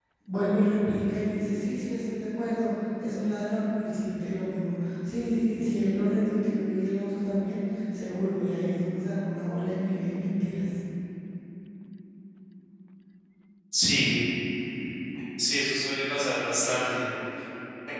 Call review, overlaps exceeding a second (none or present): none